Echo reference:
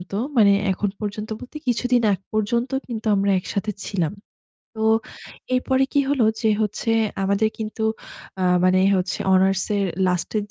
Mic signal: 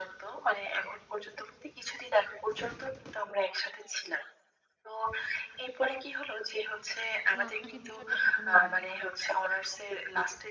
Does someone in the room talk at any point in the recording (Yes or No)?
Yes